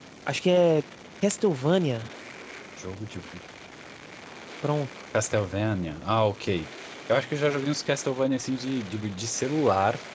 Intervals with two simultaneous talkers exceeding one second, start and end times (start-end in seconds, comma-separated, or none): none